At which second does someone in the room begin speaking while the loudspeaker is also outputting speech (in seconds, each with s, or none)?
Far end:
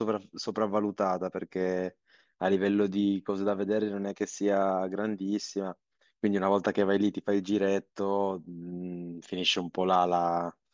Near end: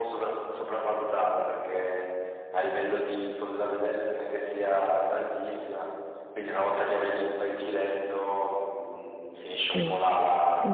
9.7 s